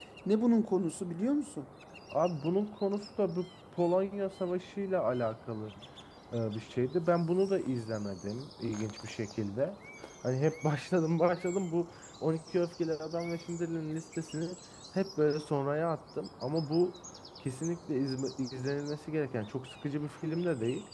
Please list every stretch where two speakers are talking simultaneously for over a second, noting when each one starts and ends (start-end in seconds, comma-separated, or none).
none